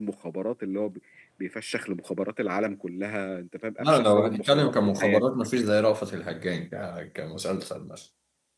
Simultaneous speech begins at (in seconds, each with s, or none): 3.8 s